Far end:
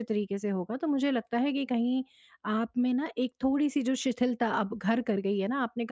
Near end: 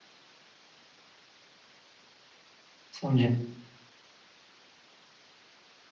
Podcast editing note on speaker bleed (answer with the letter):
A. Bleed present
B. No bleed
B